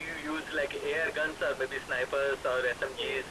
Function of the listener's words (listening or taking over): taking over